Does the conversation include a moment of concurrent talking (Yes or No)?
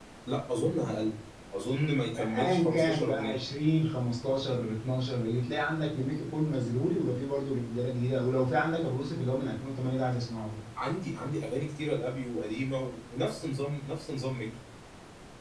Yes